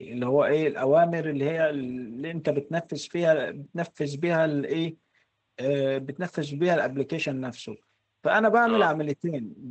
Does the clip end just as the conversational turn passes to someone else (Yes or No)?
No